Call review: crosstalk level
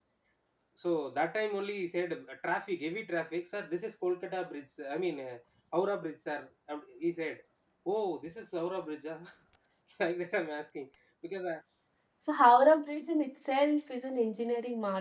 none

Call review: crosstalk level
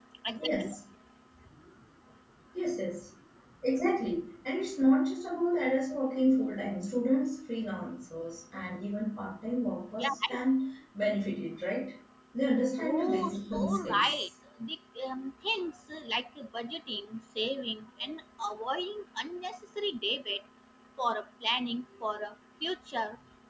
present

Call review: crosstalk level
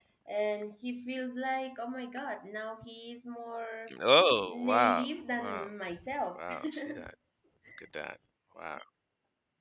present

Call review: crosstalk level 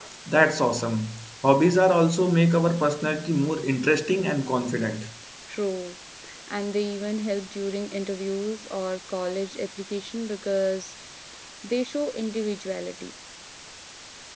none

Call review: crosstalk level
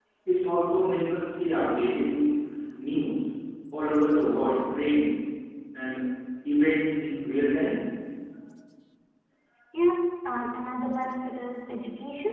none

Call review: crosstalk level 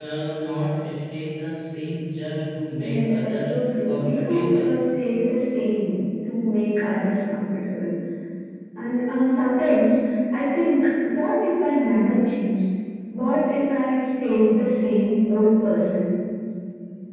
present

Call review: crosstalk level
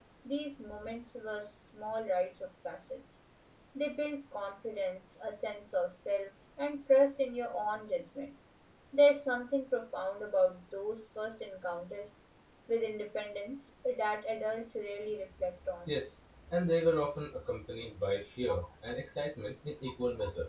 none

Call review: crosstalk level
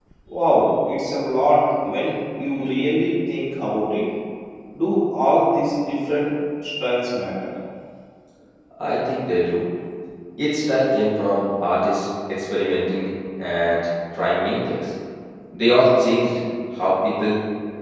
none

